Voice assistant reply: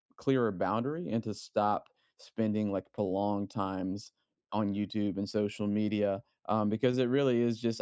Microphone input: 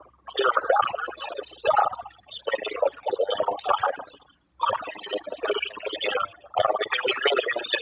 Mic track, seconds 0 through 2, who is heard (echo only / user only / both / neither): echo only